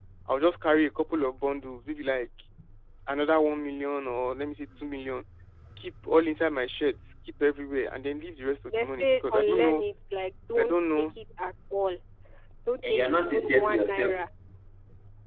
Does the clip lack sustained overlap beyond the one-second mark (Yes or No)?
No